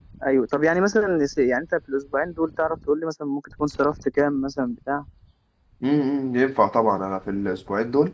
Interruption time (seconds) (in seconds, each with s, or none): none